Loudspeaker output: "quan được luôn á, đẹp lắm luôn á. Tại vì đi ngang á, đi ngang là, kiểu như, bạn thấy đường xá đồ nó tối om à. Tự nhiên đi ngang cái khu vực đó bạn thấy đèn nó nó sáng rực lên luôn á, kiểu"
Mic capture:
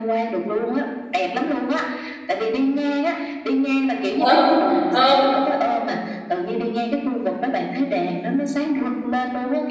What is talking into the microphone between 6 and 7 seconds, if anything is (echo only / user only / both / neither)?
echo only